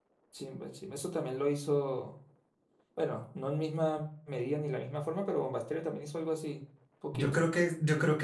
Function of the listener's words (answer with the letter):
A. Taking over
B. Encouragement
A